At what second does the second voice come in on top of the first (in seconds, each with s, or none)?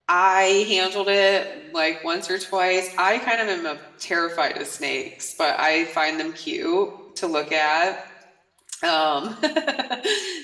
none